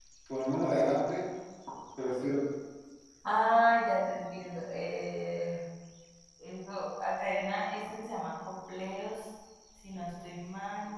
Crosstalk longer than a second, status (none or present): none